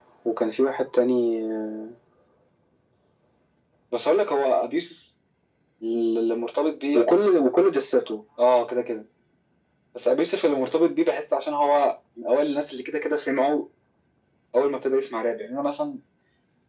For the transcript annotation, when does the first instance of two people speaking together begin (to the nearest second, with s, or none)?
none